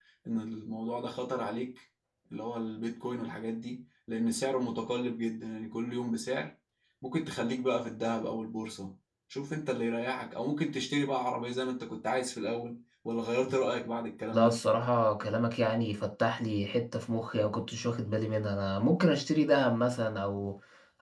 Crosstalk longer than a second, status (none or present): none